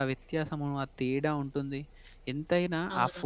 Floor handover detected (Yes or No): No